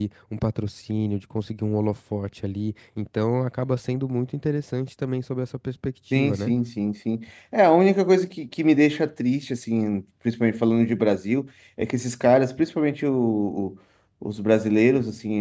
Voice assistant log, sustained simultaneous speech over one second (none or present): none